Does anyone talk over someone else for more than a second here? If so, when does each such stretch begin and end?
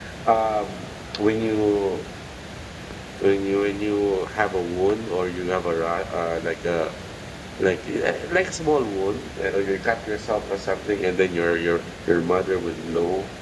none

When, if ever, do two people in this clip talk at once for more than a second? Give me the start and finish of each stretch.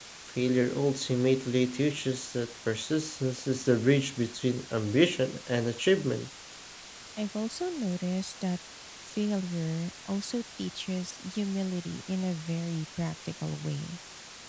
none

